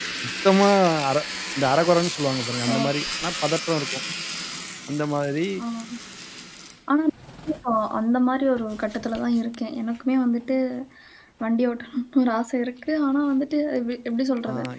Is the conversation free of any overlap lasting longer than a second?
Yes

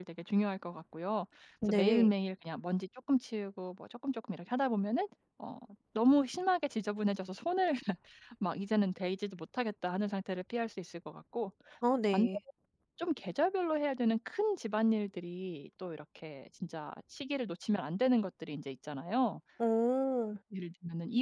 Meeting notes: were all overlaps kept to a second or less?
Yes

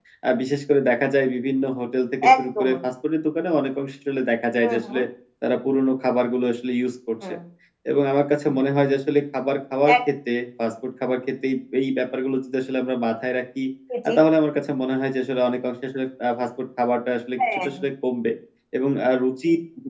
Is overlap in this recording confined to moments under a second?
Yes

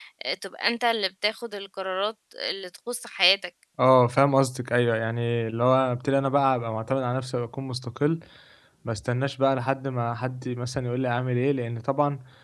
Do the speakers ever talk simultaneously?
No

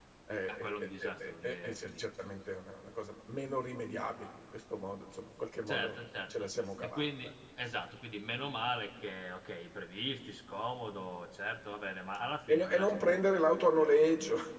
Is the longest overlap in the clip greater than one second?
Yes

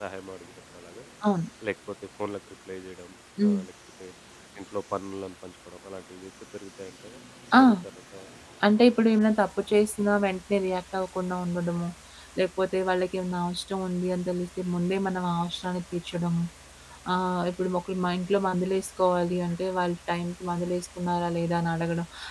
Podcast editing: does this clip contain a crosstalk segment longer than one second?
No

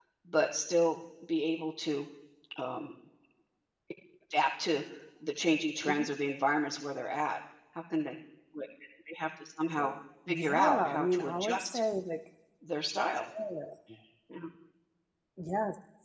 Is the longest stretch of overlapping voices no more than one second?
No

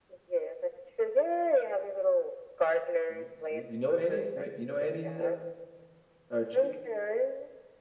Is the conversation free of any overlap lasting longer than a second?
No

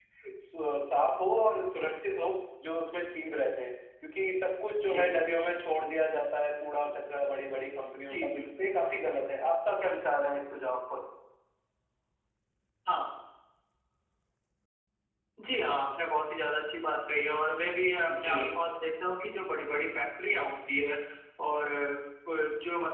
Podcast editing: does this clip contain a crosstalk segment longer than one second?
No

